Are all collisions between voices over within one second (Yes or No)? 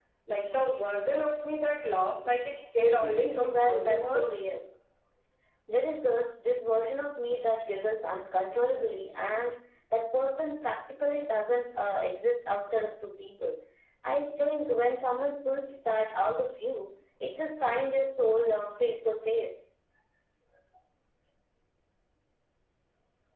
No